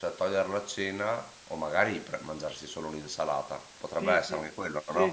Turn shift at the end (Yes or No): Yes